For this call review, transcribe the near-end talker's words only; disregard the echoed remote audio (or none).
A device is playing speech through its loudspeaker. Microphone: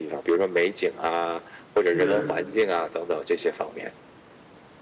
是，